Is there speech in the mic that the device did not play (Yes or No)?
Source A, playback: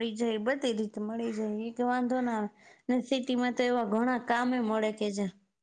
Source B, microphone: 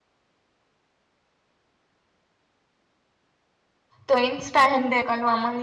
Yes